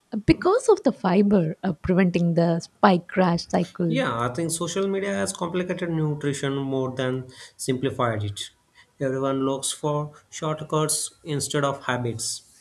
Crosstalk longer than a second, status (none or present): none